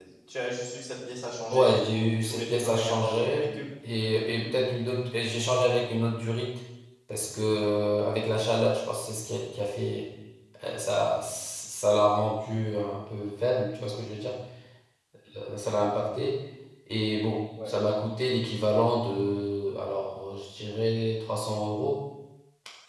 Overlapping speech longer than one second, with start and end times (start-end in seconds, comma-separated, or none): 1.5-3.5